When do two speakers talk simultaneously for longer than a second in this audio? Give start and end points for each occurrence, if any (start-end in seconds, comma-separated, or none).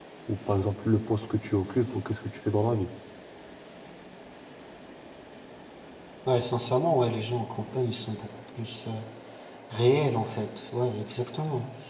none